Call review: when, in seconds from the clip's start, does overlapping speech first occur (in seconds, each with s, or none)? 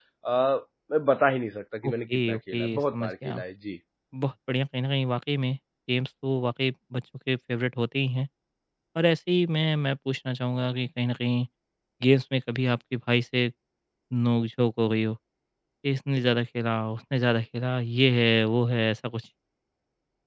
1.8 s